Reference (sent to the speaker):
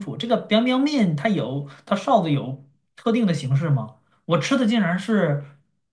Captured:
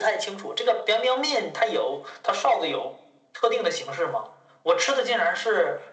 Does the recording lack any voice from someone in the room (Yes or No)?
Yes